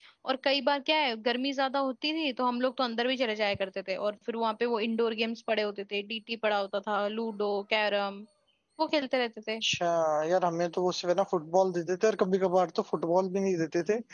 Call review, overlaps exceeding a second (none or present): none